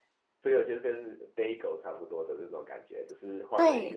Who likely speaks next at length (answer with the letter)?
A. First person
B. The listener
B